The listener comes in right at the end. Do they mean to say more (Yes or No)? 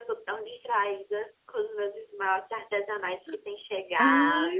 Yes